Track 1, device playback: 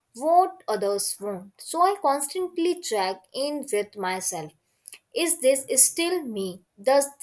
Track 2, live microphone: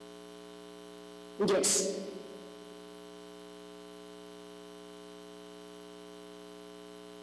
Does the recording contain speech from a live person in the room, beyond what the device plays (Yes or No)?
Yes